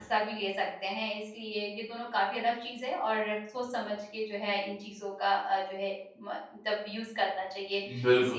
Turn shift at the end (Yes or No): Yes